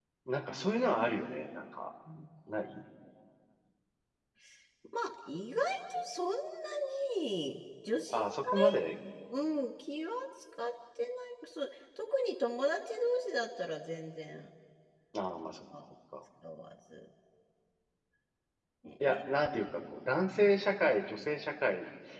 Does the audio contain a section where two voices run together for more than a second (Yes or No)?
No